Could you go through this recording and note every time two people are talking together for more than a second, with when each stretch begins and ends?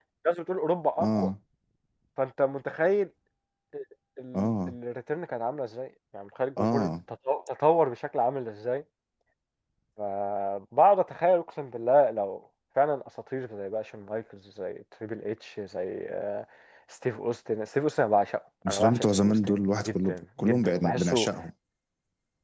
18.7-21.3

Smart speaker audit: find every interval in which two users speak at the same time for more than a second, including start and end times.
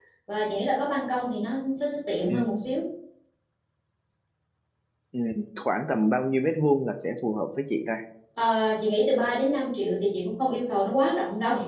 none

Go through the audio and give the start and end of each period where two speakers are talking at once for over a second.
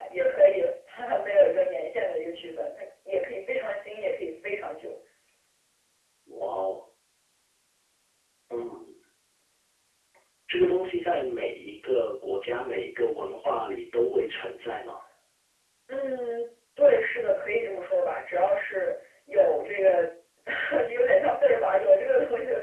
none

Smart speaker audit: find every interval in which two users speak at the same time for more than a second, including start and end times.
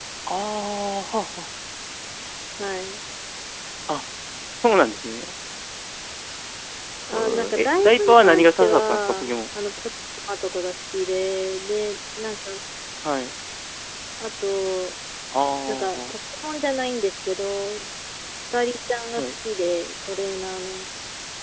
7.1-9.3

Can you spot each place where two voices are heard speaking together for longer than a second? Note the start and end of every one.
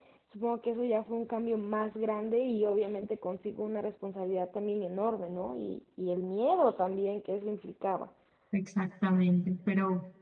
none

